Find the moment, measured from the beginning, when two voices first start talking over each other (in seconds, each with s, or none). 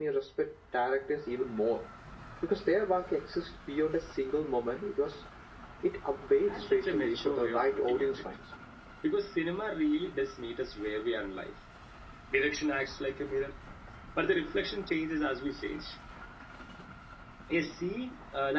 6.3 s